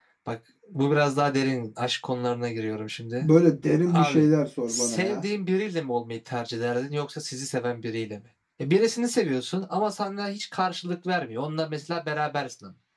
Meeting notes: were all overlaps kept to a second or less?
Yes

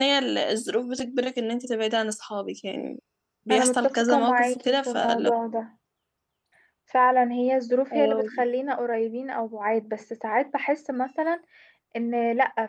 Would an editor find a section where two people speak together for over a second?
Yes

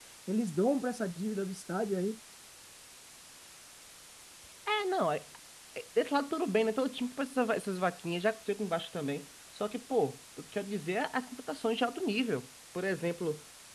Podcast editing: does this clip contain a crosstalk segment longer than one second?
No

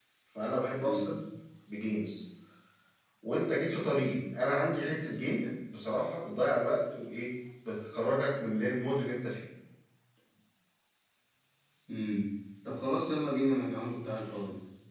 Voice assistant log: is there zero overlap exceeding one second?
Yes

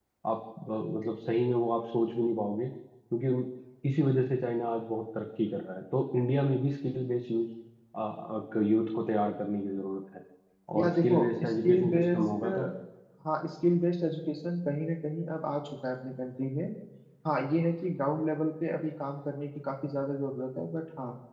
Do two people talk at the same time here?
Yes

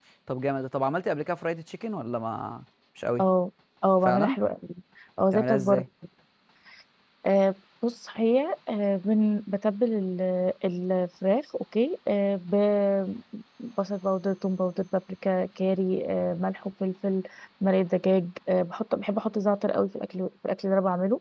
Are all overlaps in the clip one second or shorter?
Yes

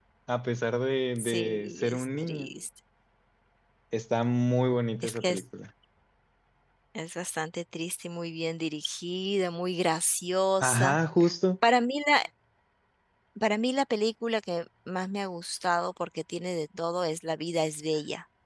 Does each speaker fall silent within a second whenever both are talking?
No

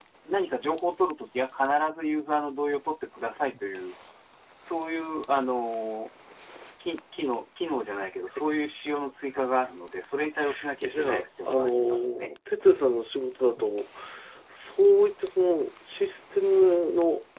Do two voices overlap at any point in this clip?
Yes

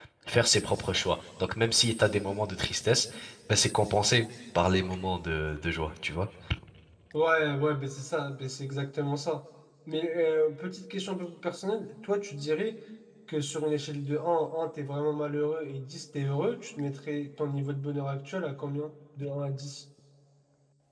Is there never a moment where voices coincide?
Yes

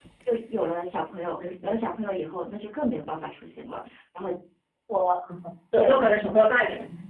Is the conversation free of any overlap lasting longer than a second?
Yes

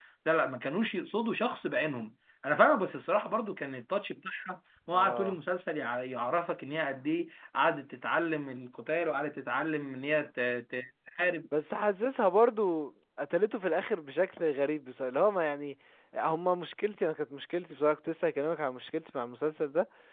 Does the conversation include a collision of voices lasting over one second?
No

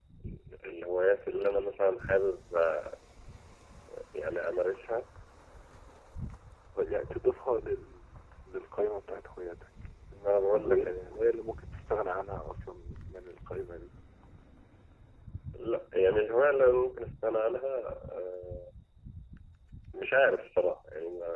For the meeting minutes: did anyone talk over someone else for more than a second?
No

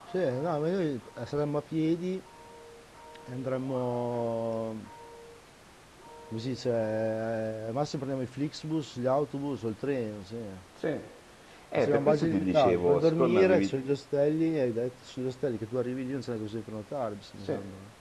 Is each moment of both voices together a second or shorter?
No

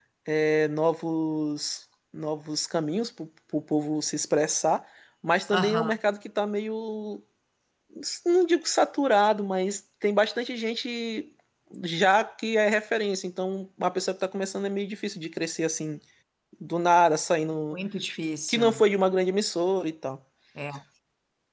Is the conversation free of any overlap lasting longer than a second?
Yes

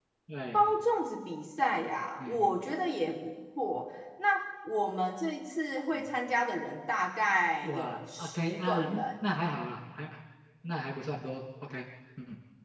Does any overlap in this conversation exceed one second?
Yes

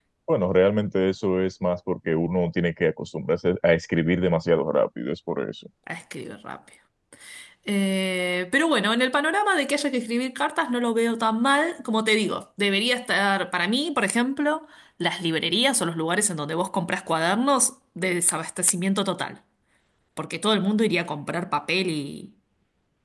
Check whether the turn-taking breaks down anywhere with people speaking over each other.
No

